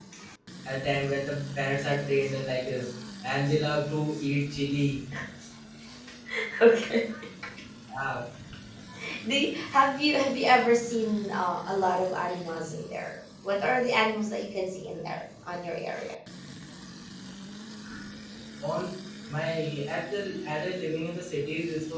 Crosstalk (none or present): none